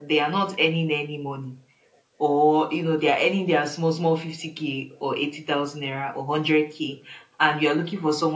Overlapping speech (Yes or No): No